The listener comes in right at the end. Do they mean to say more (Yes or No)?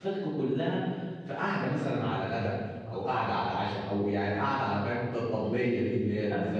Yes